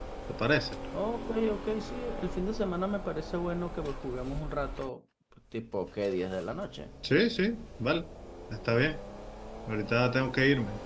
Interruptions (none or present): none